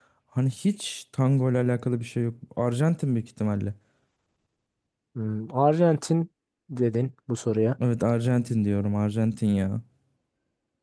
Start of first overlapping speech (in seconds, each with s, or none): none